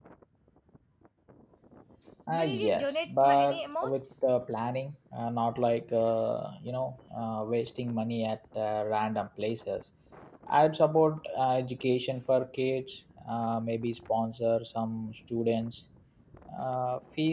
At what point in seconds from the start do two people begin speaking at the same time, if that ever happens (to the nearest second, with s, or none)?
2 s